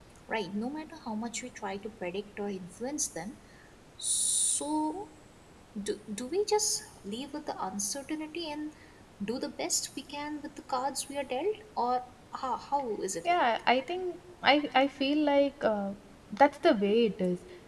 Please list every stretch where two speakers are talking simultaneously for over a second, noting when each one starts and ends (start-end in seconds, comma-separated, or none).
none